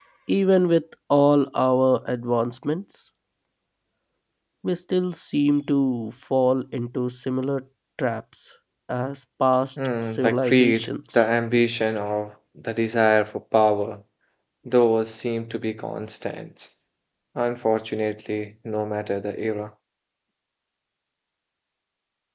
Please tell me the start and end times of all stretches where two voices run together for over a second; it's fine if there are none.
10.0-11.2

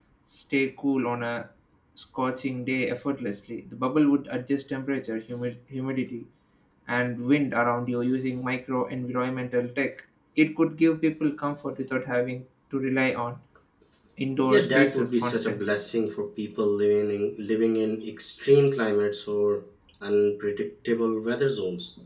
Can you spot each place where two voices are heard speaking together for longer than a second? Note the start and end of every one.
14.4-15.7

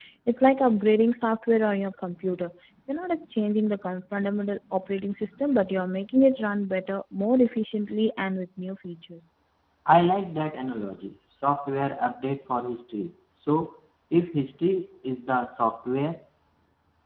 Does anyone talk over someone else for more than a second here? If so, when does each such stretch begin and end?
none

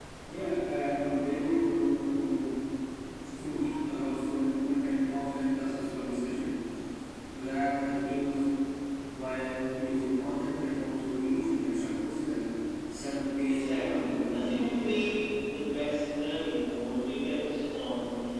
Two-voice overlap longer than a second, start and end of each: 13.5-14.9

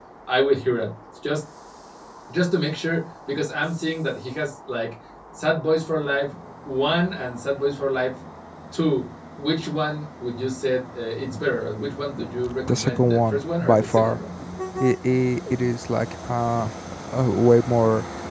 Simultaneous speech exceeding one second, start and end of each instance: 12.7-14.2

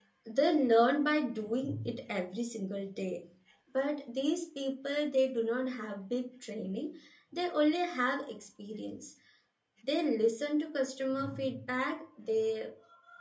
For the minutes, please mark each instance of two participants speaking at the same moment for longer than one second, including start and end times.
none

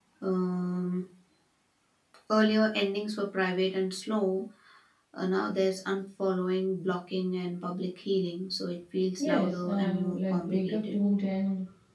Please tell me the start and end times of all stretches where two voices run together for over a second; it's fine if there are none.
9.2-11.0

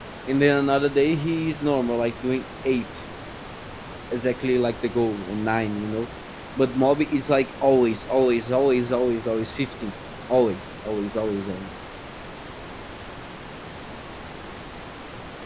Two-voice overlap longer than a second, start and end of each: none

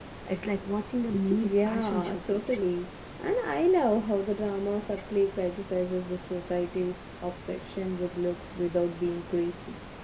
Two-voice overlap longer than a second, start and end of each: 1.4-2.7

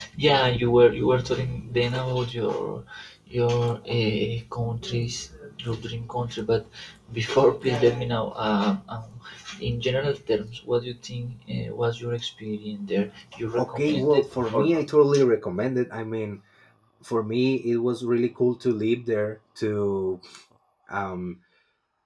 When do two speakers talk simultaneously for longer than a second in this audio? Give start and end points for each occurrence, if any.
13.6-14.8

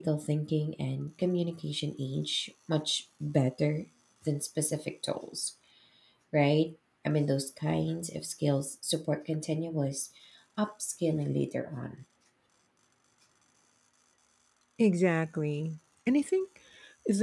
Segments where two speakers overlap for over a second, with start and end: none

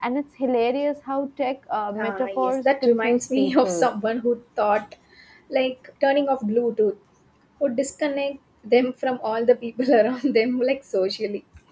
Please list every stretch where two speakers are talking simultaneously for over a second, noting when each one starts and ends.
2.0-3.9

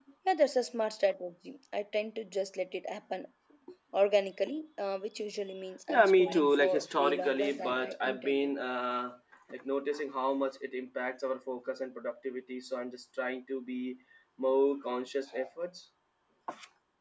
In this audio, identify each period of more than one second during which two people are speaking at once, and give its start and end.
5.9-8.5

